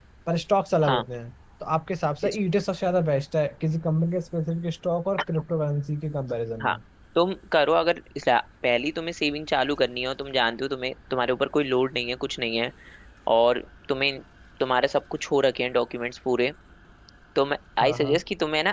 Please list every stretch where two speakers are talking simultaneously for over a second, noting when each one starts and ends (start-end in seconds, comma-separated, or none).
none